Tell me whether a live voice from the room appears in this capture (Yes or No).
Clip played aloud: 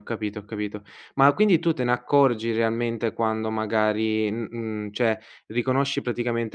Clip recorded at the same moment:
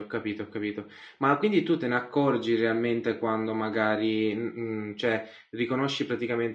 No